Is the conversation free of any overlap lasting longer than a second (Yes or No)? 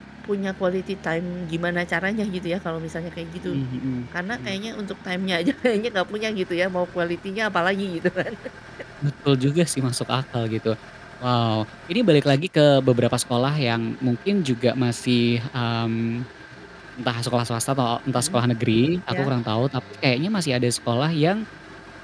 Yes